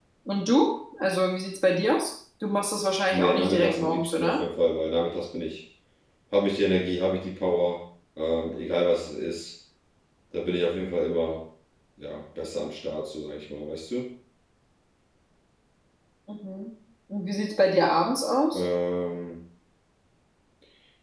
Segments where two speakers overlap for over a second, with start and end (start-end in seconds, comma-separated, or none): 3.1-4.4